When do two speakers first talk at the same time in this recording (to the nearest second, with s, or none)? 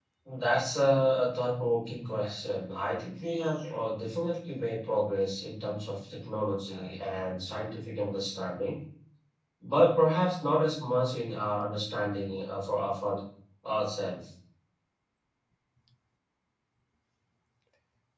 none